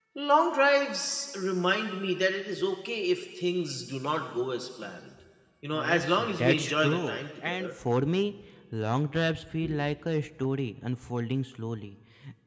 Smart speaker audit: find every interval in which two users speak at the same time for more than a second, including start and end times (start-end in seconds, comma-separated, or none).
5.7-7.7